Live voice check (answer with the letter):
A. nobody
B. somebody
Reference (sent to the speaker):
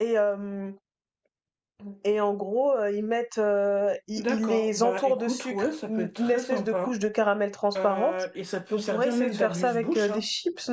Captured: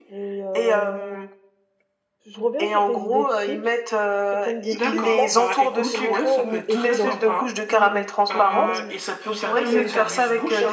B